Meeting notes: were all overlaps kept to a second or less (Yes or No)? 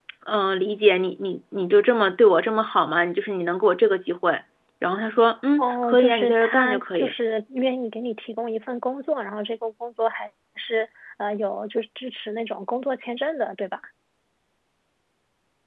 No